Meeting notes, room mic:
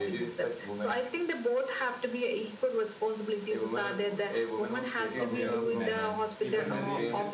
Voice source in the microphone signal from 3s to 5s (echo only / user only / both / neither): echo only